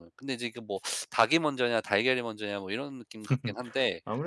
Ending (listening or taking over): taking over